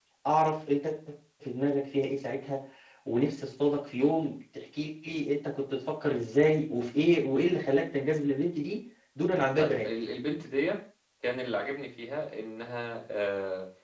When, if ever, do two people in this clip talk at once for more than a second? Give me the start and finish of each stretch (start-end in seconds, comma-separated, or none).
none